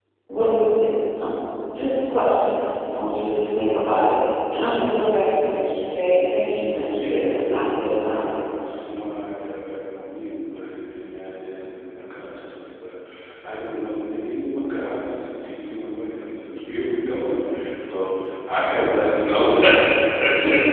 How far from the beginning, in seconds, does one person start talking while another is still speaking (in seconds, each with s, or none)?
6.9 s